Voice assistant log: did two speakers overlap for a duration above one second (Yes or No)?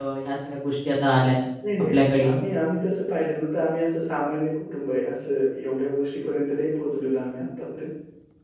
No